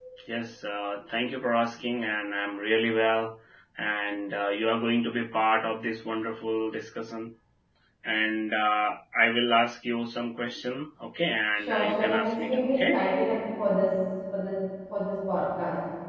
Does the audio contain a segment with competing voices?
Yes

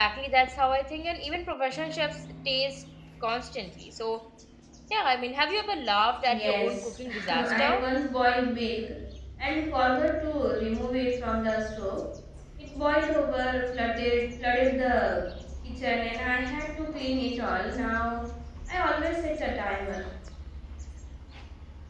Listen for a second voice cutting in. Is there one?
Yes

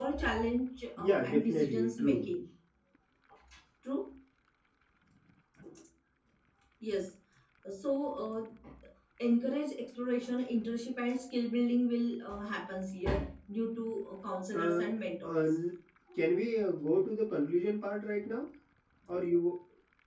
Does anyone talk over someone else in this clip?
Yes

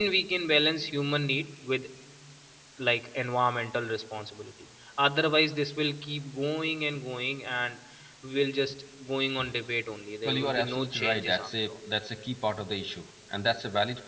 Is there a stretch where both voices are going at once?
Yes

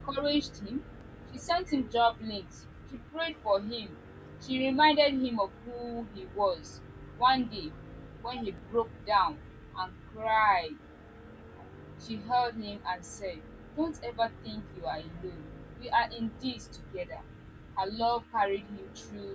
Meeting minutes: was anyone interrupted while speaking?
No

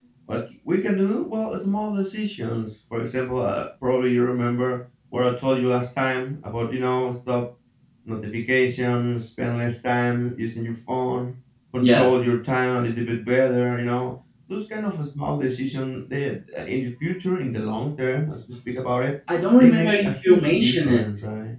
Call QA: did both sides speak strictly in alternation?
No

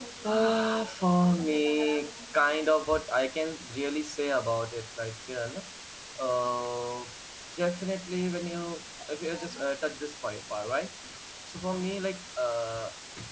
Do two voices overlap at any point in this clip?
No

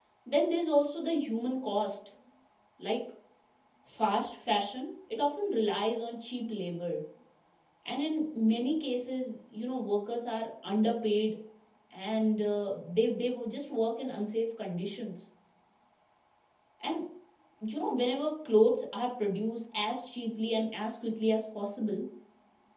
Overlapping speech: No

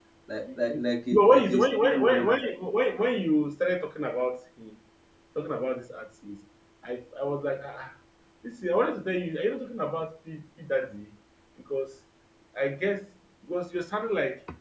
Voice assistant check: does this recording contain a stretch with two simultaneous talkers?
Yes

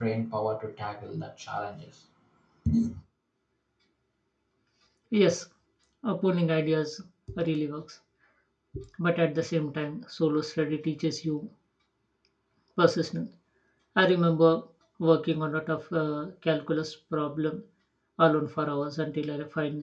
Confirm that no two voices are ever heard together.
Yes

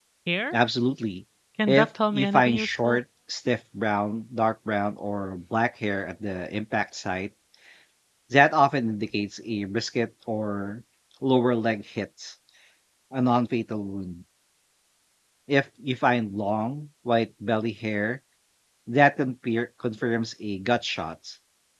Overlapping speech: Yes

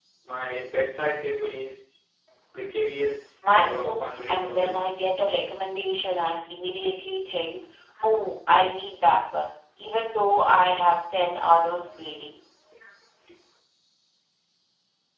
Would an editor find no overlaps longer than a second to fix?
No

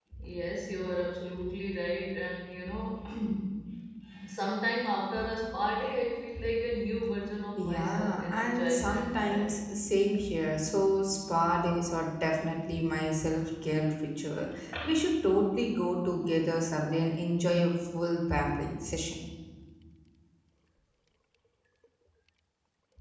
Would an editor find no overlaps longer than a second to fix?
No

